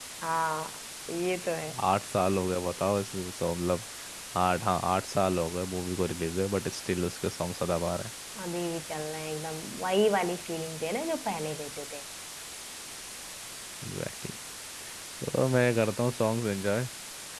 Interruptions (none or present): none